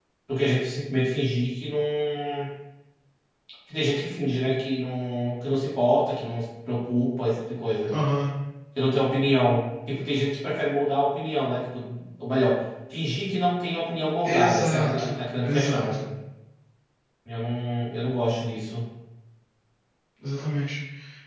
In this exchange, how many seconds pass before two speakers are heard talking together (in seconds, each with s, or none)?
14.2 s